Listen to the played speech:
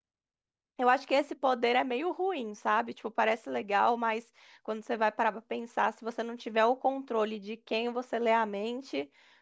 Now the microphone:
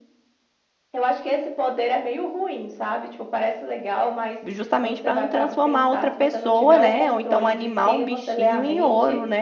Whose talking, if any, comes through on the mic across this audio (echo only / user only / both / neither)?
both